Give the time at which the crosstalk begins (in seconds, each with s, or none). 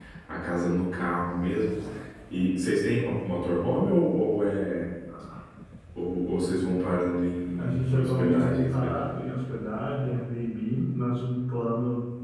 7.6 s